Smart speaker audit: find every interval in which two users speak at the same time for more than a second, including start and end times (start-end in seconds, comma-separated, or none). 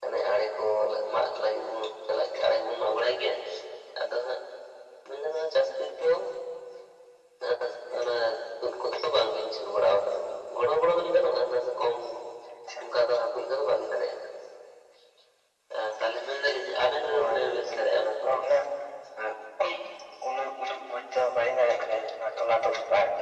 17.1-18.3